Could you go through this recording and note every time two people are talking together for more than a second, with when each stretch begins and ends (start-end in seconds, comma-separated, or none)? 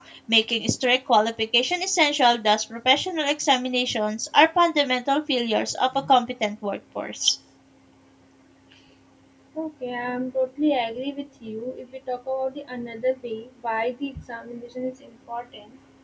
none